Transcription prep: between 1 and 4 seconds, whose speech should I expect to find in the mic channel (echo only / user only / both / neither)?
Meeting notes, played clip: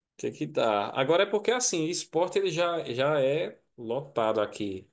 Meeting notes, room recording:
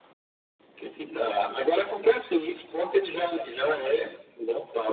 echo only